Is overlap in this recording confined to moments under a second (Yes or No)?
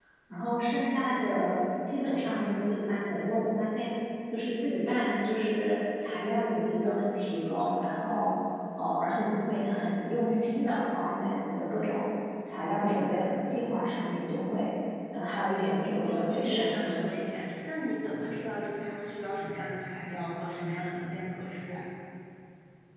No